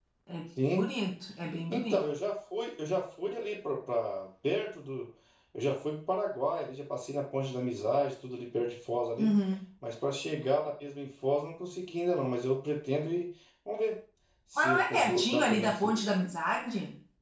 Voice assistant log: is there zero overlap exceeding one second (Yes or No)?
No